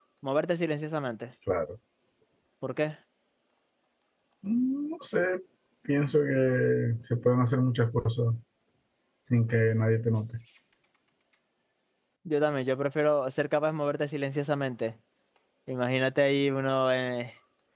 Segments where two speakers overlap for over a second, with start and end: none

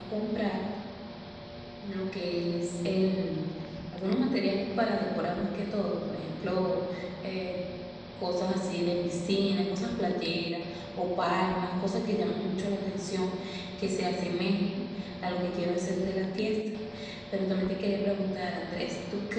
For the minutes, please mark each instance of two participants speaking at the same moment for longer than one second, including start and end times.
none

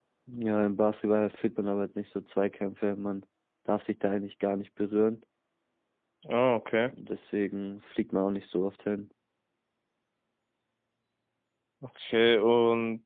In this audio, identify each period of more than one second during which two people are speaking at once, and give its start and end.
none

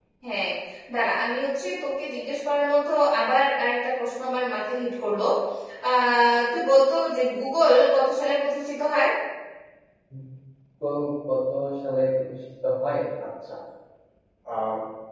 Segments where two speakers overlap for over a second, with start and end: none

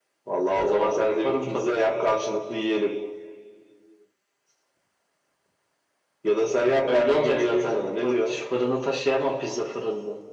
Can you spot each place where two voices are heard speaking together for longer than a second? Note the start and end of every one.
0.5-1.9, 6.8-8.3

